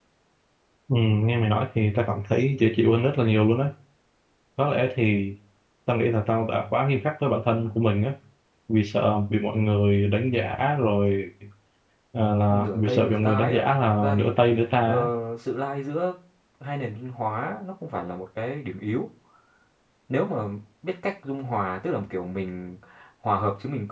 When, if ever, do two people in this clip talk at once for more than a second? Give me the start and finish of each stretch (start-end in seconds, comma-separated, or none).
12.5-14.3